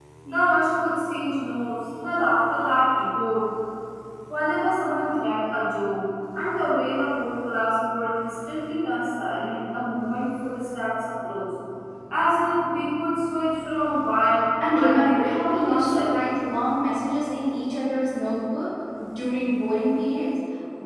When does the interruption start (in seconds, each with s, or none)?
14.6 s